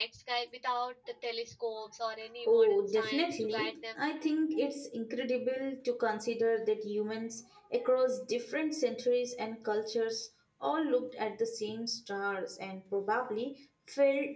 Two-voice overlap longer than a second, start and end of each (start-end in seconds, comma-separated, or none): 2.5-3.7